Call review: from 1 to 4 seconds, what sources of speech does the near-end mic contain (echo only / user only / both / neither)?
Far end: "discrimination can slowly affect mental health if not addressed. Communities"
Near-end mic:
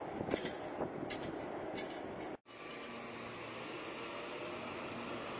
neither